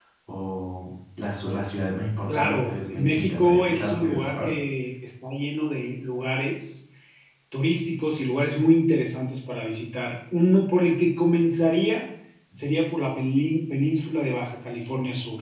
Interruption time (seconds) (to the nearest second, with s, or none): 2 s